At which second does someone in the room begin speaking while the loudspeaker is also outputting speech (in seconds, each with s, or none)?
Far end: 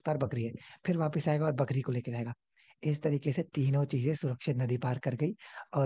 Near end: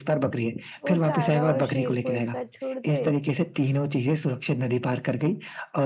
0.8 s